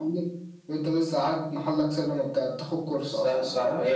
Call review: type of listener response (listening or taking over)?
taking over